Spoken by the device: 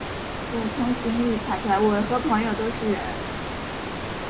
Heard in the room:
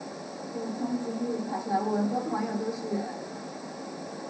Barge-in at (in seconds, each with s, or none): none